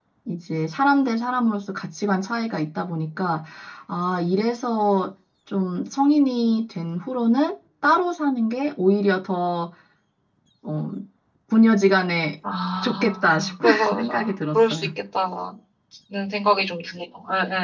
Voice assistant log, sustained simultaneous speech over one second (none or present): present